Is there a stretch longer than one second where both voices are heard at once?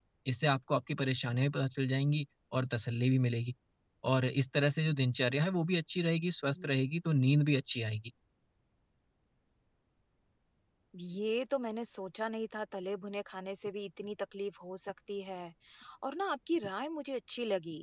No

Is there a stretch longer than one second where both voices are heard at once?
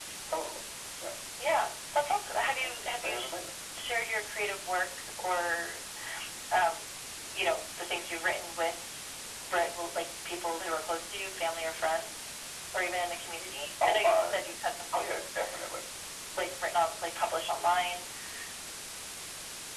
No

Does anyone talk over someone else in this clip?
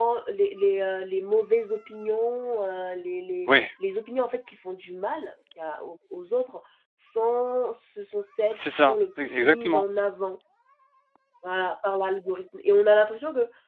Yes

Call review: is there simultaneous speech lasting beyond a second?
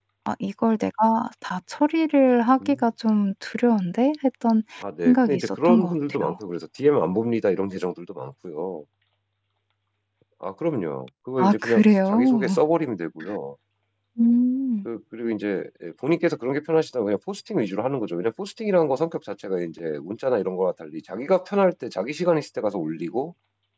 Yes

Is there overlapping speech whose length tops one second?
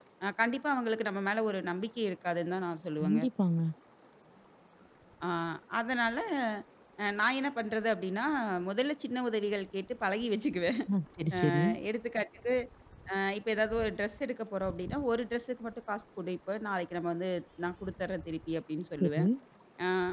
No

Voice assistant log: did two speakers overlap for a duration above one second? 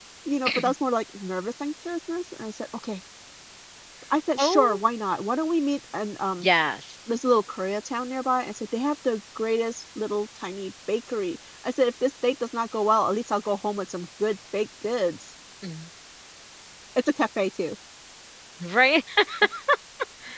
No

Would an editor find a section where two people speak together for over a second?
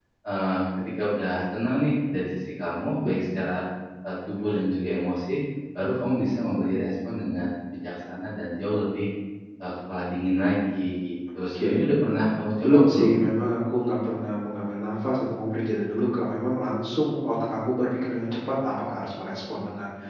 No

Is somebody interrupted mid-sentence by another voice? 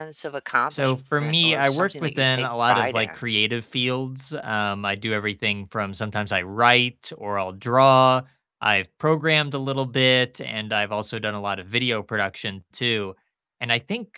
Yes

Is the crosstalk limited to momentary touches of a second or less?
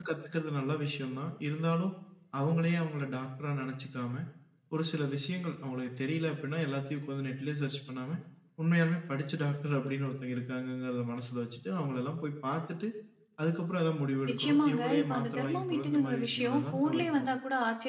No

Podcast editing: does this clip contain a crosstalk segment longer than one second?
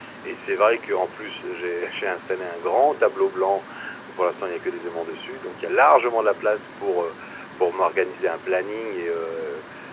No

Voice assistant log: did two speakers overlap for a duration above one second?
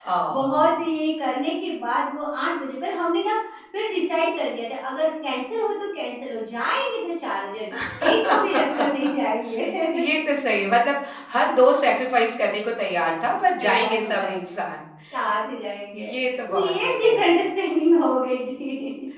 Yes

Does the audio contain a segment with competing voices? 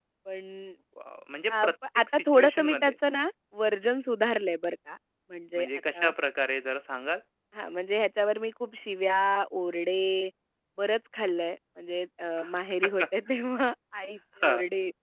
Yes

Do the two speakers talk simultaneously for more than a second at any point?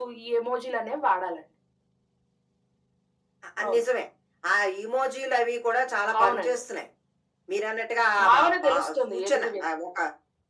Yes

